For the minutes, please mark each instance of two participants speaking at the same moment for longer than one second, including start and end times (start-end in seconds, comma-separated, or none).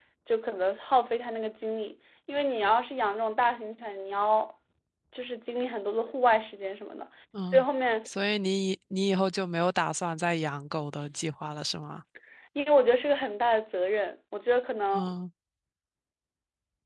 none